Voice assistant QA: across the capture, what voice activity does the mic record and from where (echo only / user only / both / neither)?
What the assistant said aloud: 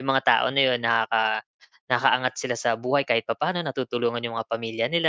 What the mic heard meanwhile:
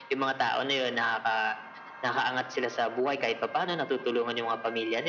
echo only